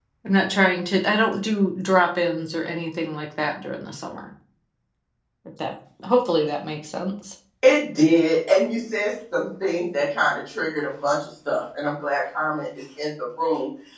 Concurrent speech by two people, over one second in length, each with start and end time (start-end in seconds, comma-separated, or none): none